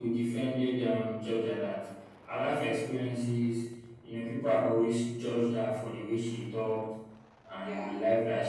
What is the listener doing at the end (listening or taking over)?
listening